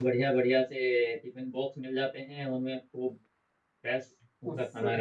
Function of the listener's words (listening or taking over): taking over